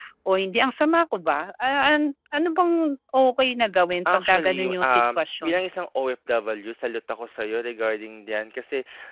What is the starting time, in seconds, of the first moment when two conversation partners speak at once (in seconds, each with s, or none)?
4.0 s